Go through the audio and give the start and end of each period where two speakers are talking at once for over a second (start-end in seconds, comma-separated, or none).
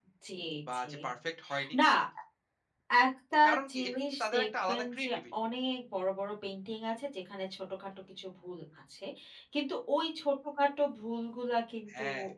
3.7-5.2